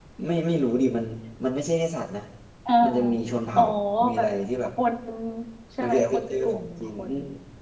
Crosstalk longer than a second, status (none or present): present